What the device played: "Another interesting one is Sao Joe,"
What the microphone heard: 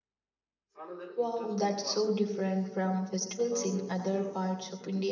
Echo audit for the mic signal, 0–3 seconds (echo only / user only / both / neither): both